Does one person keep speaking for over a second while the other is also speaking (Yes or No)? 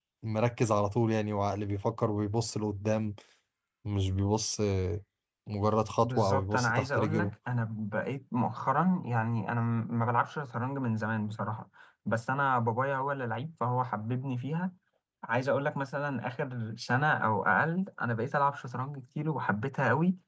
Yes